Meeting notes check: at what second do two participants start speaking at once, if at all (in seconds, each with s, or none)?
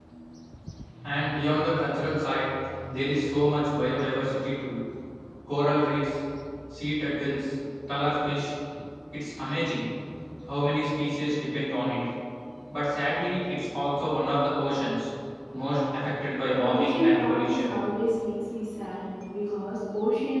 16.4 s